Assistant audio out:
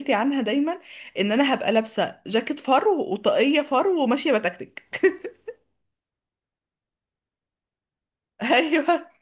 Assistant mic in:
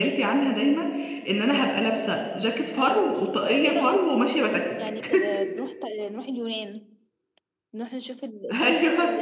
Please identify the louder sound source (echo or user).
echo